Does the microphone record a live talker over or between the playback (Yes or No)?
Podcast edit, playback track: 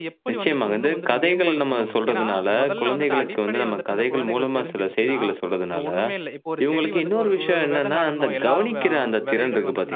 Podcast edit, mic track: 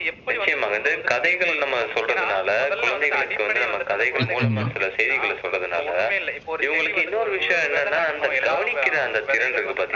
Yes